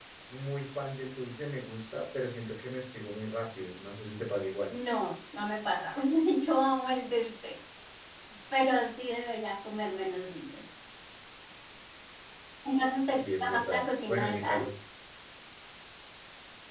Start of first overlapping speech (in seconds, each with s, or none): 13.1 s